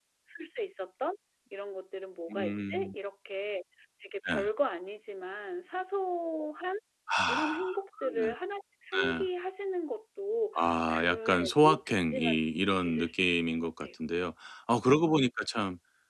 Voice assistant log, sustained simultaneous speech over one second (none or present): present